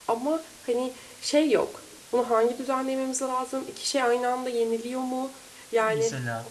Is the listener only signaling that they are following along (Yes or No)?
Yes